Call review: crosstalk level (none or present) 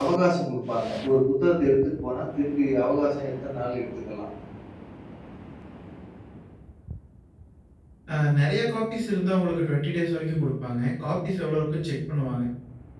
none